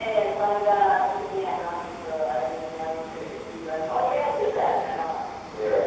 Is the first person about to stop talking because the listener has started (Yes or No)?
Yes